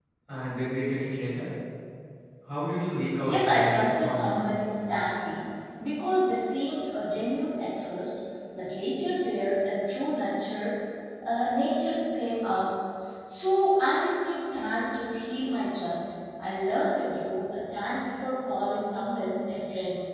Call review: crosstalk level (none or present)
present